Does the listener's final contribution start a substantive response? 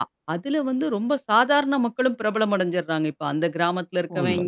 No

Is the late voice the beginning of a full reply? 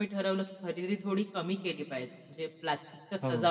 No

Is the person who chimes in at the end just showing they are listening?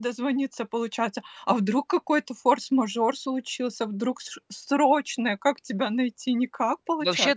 No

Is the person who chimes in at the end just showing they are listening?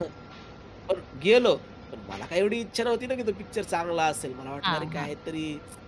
Yes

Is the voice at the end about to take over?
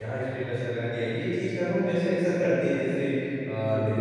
No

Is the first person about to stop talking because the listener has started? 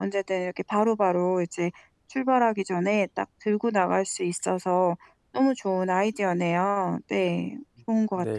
Yes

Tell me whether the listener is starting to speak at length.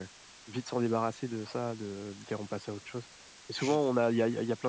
No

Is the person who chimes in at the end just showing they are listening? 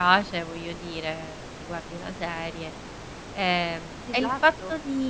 Yes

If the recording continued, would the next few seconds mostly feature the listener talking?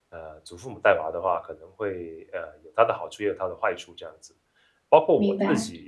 No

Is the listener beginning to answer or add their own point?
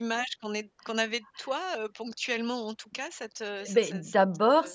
Yes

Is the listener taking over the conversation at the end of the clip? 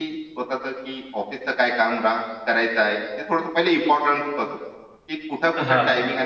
No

